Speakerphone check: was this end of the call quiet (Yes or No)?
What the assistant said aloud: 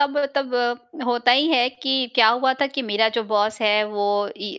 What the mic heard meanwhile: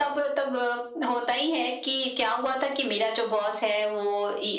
Yes